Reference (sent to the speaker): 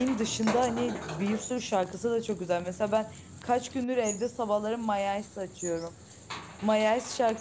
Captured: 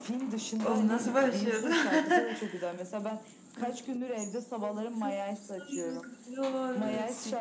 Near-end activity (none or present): present